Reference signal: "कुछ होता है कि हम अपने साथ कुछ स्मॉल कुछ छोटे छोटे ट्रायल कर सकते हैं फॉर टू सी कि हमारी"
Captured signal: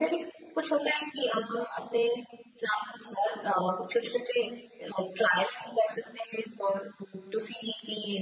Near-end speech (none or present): none